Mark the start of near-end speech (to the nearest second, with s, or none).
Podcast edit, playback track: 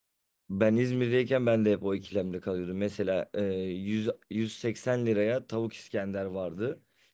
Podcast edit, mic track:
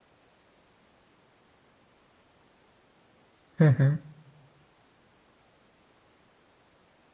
4 s